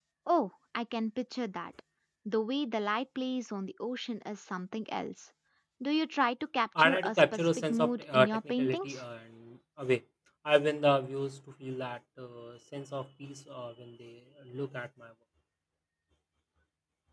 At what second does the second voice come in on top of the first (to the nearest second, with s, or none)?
7 s